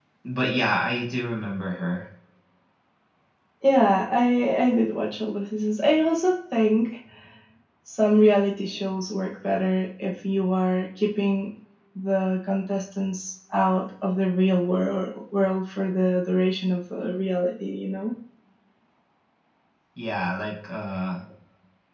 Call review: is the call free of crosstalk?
Yes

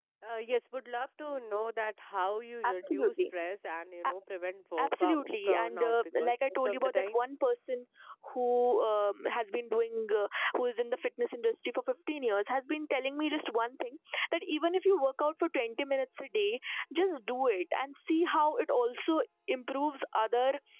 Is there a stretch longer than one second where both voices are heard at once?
Yes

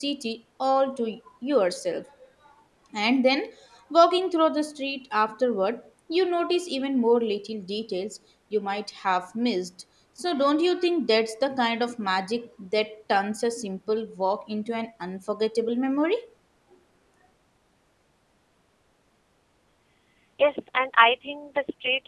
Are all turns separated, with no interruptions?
Yes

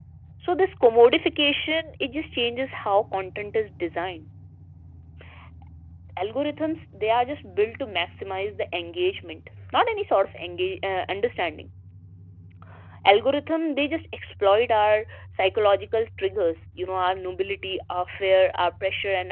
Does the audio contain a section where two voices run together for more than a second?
No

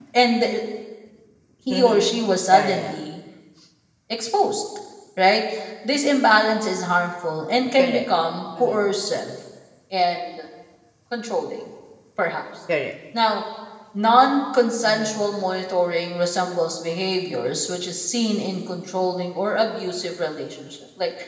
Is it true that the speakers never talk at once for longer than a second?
No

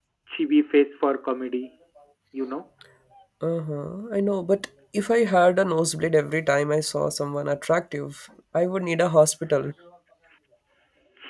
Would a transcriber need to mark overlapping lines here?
No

